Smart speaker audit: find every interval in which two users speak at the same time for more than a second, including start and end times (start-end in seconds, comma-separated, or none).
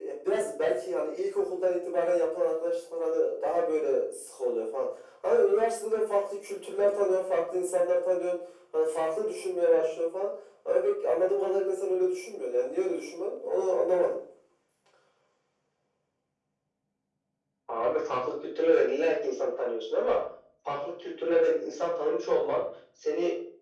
none